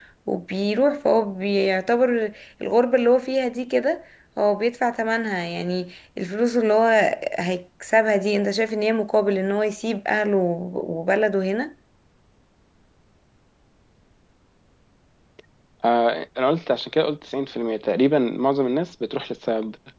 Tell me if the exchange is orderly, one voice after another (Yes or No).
Yes